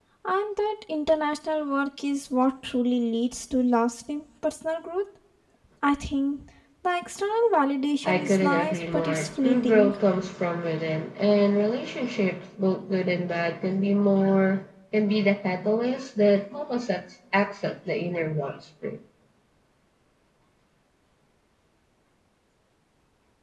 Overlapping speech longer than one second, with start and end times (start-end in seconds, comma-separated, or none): 8.0-9.9